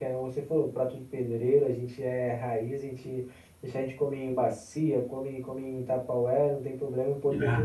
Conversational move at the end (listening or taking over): listening